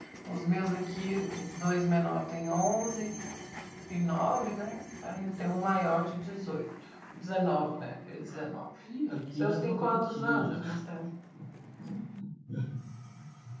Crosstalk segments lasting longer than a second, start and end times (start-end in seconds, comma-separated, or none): 9.3-10.6